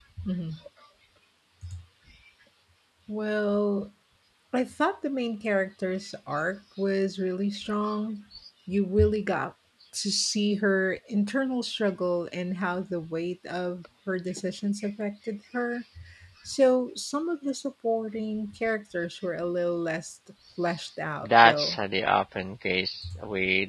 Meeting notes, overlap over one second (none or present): none